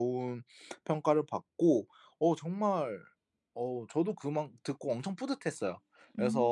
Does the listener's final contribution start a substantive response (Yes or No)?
No